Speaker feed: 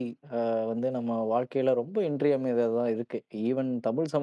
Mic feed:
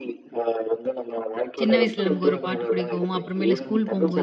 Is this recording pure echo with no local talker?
No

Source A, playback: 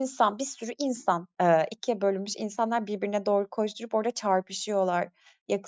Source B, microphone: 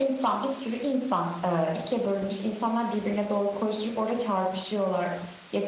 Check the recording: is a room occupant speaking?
No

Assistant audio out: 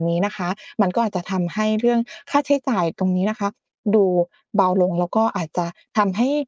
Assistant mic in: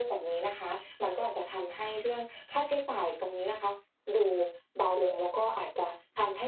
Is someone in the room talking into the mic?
No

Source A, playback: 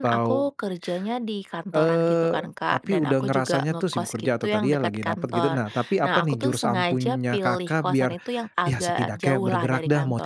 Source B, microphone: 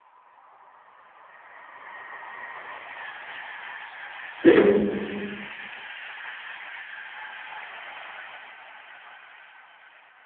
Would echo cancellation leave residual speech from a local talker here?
Yes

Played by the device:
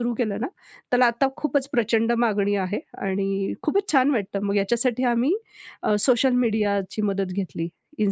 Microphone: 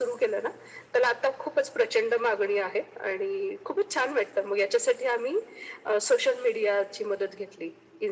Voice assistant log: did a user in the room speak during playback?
No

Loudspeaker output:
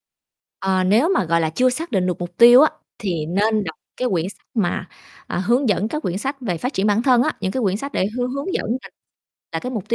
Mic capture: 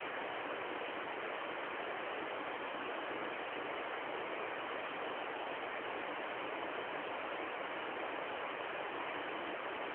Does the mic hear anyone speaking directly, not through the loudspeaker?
No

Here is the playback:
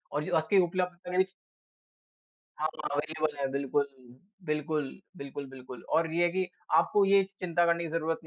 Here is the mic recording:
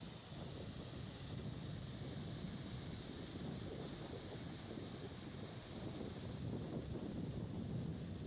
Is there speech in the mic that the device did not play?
No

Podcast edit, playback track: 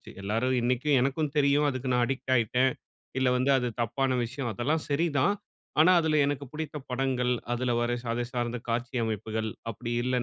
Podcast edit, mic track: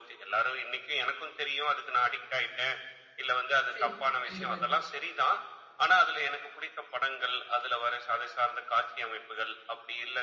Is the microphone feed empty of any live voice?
No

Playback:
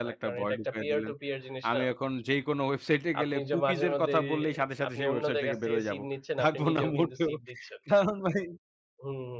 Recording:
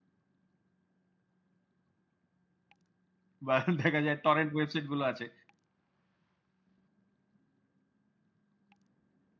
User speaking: Yes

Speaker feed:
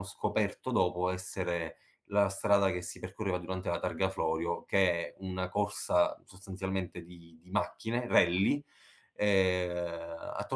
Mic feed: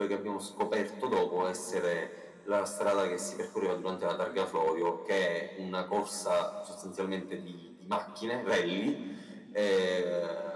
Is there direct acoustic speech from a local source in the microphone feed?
No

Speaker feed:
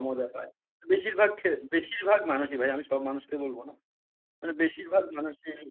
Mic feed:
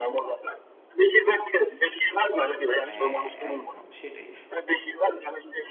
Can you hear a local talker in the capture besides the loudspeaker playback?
Yes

